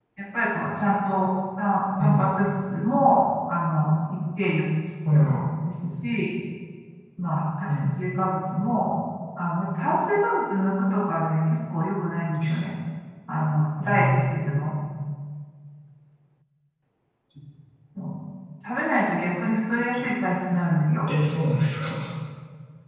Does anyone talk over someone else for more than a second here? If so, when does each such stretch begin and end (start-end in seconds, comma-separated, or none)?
none